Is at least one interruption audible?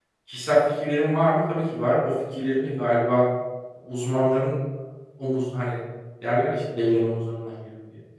No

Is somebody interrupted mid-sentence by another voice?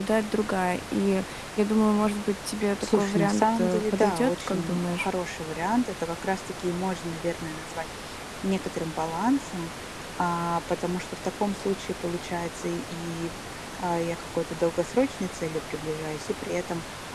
Yes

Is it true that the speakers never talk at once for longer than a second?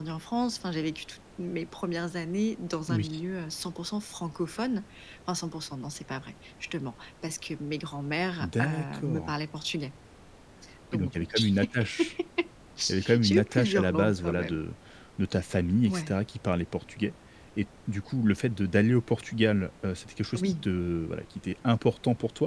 No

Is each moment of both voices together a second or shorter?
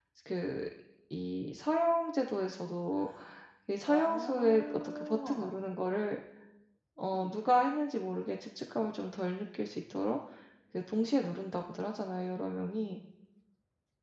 No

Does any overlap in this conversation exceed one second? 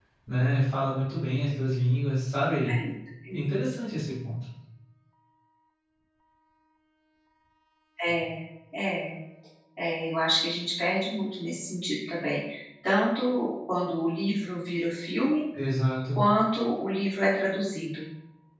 No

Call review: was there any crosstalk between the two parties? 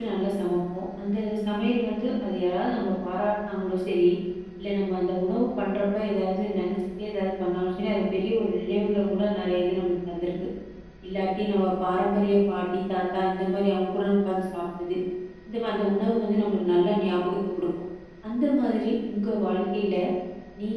No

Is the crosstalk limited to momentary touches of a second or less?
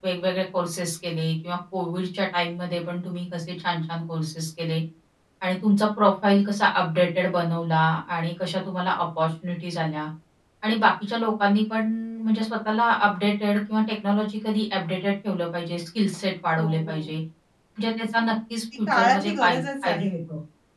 No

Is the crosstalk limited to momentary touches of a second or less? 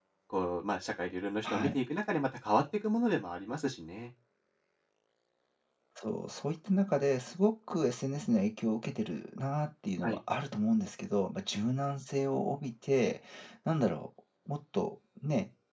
Yes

